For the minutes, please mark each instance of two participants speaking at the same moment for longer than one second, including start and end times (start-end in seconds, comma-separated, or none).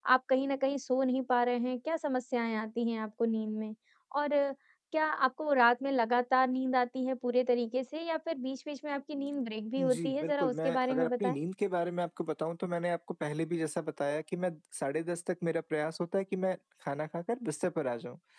9.8-11.4